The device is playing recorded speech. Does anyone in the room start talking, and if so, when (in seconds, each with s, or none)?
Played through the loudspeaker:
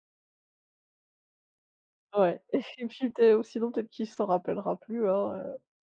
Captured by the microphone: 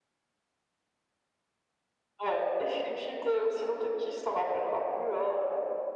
none